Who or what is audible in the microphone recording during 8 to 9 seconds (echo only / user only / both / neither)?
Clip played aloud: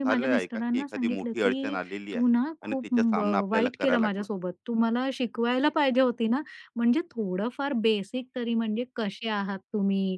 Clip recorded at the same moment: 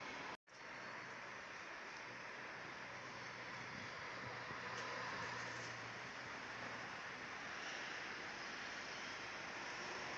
neither